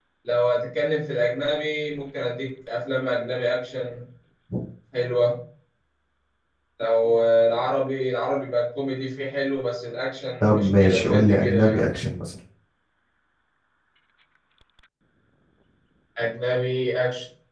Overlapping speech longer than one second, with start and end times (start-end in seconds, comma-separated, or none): 10.4-11.8